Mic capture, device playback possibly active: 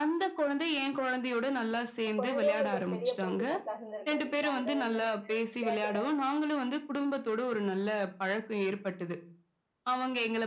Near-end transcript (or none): உங்க குழந்தையே உங்களுக்கு ஒரு பெரிய பொழுதுபோக்கா இருந்திருக்கும் இல்லைங்களா? அத வந்து நீங்க விளையாட்டுக்கா